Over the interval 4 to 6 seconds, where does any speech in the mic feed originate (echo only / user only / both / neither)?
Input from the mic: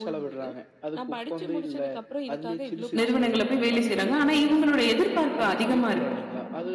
both